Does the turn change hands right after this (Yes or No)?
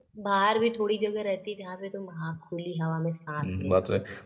Yes